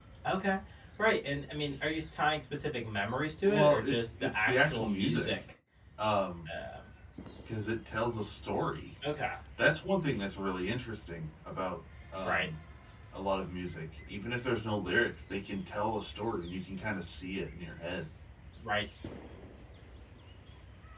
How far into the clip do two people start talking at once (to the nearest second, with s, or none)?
3 s